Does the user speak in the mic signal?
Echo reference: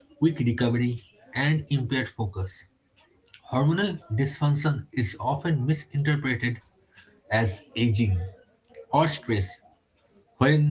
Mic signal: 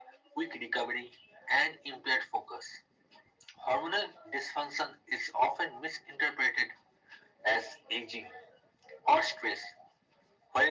No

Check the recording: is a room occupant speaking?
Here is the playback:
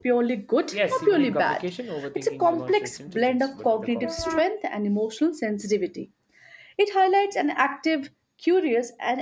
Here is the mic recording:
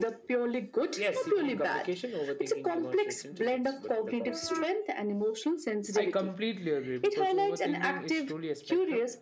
Yes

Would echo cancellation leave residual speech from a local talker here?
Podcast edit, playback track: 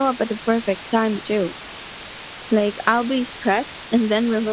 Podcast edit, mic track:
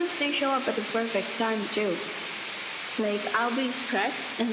No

